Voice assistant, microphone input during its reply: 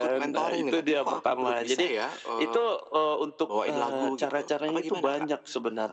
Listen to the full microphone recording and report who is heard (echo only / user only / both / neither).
echo only